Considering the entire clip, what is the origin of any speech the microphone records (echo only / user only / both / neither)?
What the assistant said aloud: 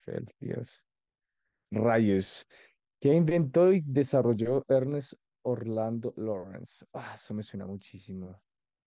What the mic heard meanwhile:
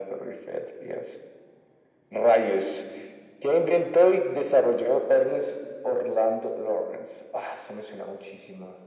echo only